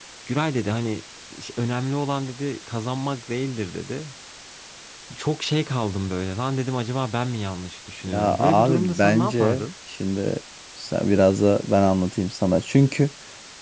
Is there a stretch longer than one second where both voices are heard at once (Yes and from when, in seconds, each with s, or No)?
Yes, from 8.1 s